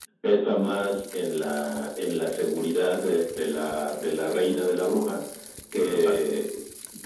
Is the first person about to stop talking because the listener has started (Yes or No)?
No